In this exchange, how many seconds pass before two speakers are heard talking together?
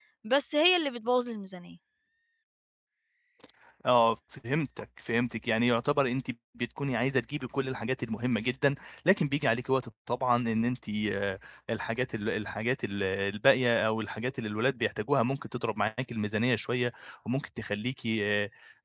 none

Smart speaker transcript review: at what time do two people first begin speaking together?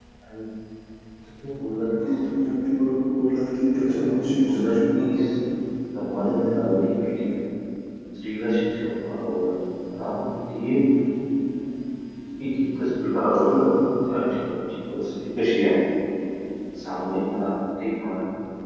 3.8 s

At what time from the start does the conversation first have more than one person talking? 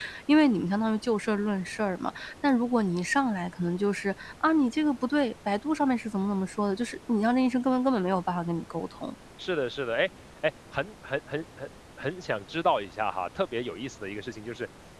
none

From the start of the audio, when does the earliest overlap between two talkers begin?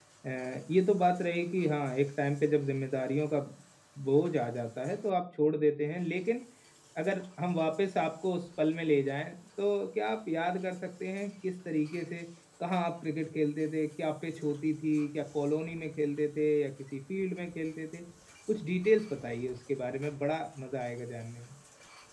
none

